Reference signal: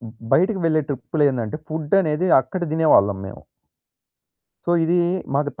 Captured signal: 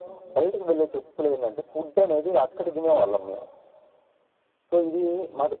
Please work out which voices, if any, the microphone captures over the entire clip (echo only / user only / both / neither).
echo only